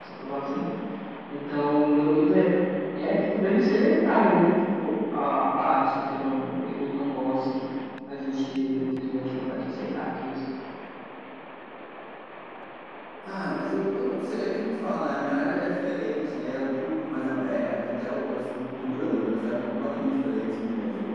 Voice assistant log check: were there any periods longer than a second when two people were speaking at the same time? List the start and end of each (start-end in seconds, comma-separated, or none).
none